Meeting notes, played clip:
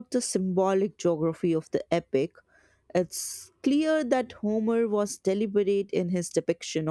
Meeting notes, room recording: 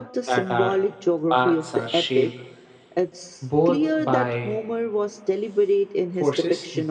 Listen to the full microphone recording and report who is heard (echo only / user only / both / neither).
both